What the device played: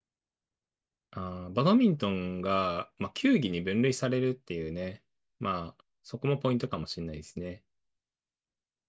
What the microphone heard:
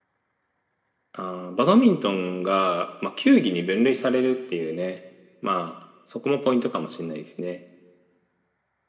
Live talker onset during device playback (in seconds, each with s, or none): none